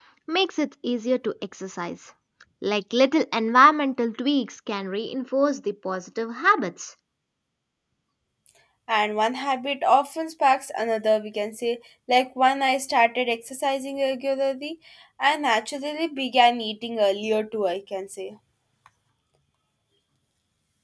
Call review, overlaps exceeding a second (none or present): none